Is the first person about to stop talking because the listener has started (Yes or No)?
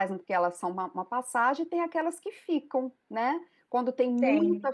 No